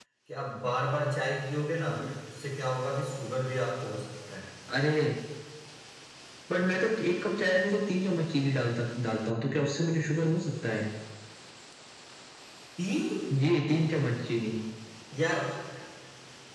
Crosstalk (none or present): none